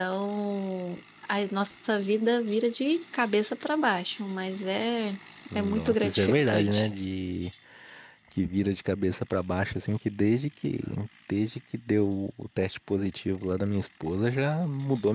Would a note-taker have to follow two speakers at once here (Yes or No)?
Yes